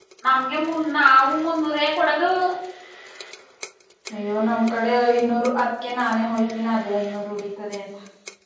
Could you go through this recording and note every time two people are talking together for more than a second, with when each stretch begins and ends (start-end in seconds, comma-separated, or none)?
none